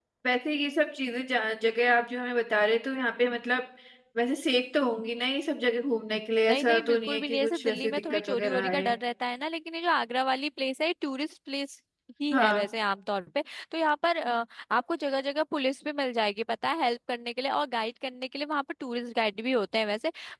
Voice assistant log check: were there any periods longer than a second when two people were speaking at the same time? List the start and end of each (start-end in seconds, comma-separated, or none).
6.5-9.0